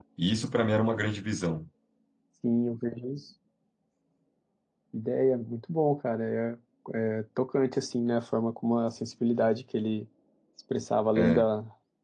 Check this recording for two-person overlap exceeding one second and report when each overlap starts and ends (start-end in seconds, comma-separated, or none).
none